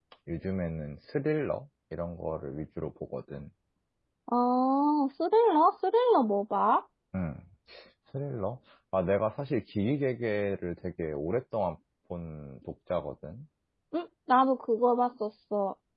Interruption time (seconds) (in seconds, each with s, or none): none